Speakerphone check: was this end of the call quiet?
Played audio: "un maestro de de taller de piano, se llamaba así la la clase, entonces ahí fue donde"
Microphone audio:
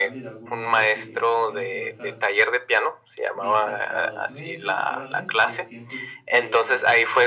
No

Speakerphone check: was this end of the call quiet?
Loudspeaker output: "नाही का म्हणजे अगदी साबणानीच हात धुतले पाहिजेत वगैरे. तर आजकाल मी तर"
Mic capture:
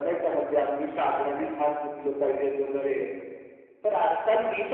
Yes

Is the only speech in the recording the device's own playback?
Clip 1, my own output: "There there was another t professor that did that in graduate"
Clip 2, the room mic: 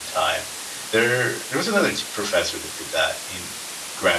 Yes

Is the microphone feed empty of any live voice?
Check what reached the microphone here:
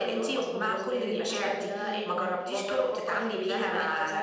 No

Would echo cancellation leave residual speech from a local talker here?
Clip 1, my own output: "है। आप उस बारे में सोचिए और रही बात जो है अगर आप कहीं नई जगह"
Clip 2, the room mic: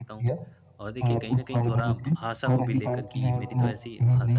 Yes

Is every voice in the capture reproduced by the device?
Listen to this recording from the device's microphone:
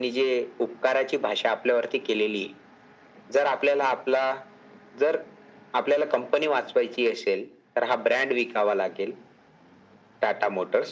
Yes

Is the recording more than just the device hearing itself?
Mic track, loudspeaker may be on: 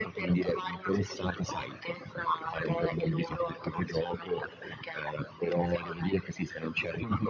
No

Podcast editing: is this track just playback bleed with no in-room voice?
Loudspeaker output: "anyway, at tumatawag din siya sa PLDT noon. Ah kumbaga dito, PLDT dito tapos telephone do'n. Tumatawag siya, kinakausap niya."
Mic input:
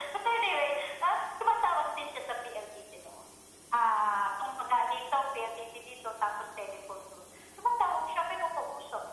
Yes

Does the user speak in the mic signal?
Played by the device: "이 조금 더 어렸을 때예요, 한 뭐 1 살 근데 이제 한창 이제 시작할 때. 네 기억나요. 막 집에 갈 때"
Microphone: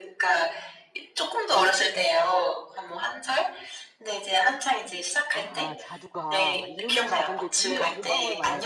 Yes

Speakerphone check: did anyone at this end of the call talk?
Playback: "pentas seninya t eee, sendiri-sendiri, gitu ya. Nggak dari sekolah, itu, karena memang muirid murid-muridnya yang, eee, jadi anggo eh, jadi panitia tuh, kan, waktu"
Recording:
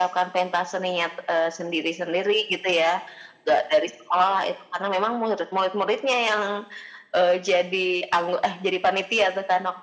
No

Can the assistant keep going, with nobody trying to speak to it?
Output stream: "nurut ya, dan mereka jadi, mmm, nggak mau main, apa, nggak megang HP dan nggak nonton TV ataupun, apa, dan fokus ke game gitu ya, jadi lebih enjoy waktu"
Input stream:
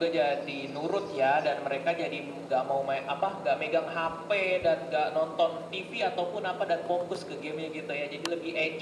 Yes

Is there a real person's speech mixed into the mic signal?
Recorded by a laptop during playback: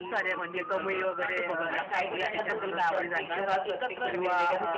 Yes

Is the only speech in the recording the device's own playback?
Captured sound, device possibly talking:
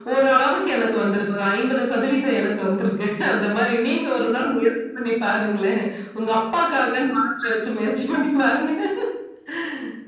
Yes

